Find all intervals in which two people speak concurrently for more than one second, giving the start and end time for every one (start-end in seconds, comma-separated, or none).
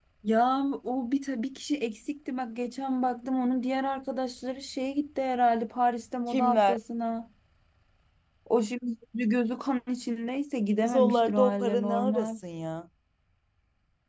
10.8-12.3